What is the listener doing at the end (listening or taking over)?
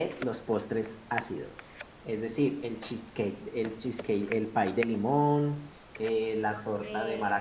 listening